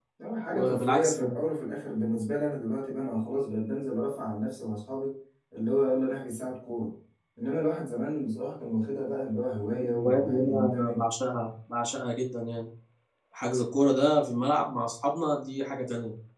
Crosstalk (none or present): present